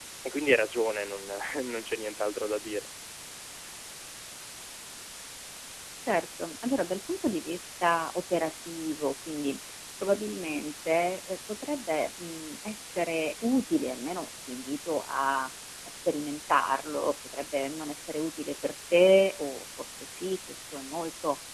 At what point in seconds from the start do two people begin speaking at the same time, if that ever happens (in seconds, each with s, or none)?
none